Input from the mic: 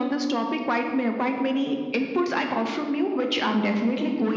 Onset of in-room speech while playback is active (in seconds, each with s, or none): none